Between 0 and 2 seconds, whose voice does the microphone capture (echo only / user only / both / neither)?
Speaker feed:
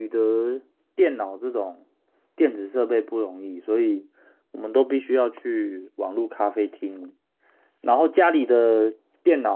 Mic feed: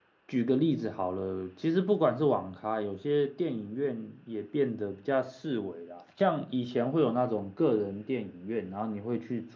user only